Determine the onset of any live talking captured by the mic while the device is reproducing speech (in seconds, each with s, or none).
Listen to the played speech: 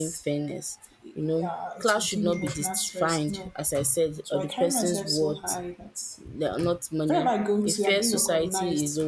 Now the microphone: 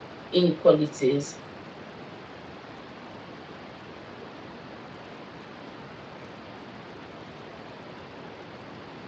0.3 s